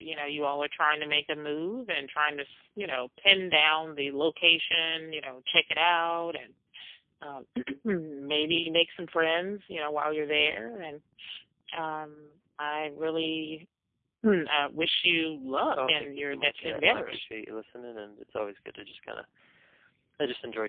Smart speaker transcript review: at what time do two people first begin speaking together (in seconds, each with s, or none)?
15.7 s